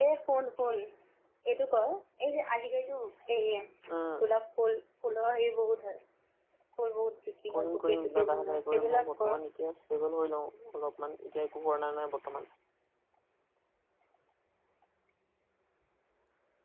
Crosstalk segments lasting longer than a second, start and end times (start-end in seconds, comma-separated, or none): 7.5-9.4